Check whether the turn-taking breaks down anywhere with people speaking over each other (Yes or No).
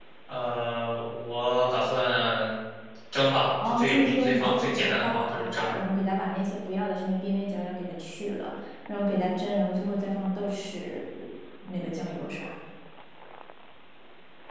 Yes